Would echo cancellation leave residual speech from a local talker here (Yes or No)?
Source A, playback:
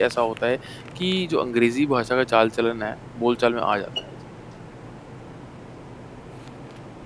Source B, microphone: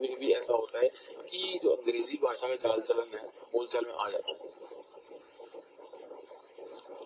No